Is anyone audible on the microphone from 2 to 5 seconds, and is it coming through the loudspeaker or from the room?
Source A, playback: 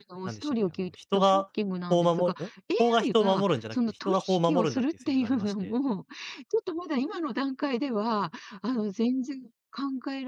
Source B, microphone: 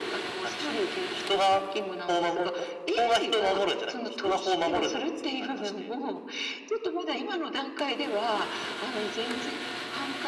echo only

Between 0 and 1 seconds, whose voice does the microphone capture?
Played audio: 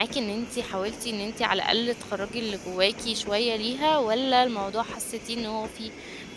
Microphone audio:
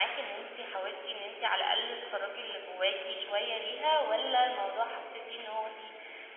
echo only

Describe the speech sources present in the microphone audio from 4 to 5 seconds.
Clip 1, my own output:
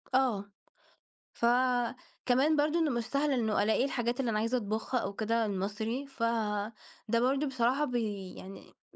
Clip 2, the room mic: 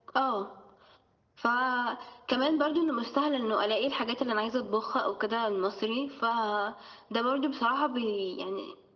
echo only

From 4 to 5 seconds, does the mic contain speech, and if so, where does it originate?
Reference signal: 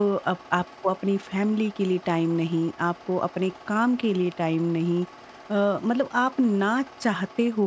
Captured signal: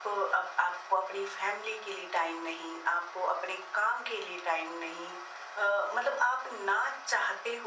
echo only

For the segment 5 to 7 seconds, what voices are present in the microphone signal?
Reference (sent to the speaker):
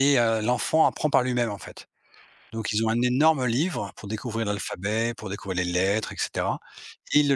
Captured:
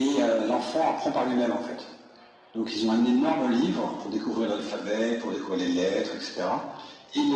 echo only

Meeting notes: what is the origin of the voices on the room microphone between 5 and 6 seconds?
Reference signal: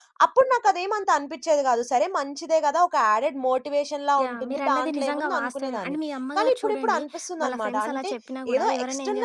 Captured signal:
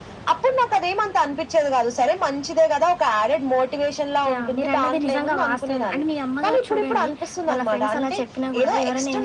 echo only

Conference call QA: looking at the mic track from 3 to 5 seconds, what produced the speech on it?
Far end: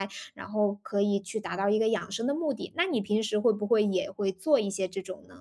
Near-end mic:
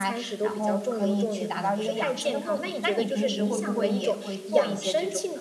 both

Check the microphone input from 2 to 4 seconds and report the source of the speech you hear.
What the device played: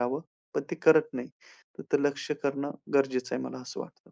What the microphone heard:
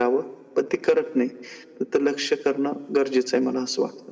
echo only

